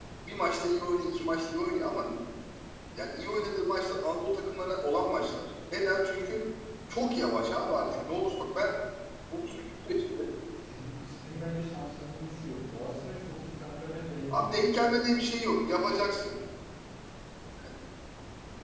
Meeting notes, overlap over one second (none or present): none